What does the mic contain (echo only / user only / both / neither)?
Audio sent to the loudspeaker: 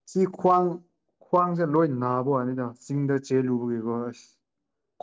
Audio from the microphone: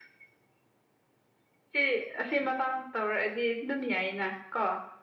user only